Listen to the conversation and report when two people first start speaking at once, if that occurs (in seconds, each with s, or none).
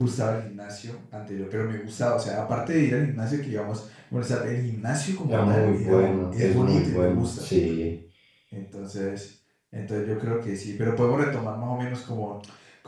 5.3 s